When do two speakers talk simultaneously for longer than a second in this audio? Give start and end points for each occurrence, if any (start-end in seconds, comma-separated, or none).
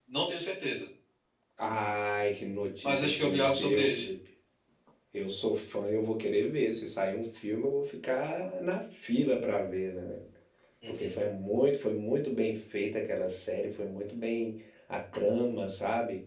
2.8-4.1